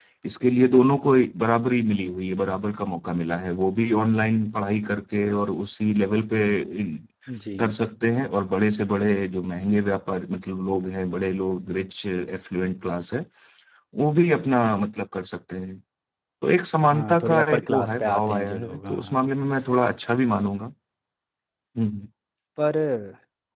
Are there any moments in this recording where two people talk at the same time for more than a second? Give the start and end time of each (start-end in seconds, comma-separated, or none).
16.9-19.2